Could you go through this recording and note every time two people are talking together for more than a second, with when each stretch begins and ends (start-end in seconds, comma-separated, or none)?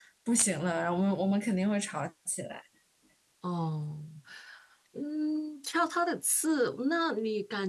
none